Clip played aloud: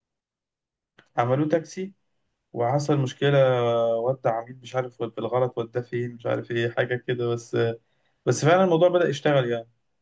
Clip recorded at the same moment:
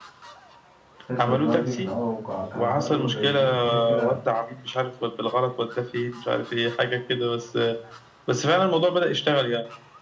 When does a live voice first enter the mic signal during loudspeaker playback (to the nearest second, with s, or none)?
1 s